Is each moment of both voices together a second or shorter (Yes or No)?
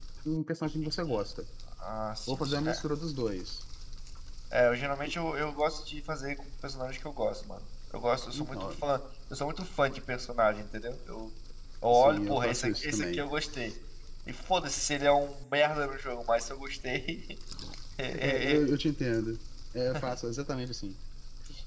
No